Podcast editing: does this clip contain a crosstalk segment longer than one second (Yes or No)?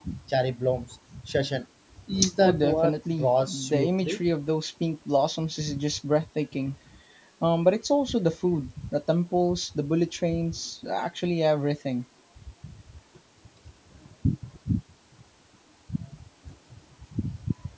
Yes